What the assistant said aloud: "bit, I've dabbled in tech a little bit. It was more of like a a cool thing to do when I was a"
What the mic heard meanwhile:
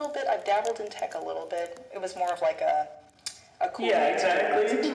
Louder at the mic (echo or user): user